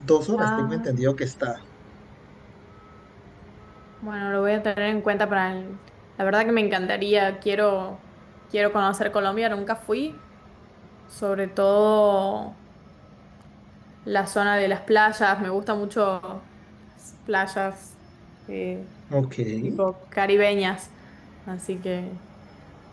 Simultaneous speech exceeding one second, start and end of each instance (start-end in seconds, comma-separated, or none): none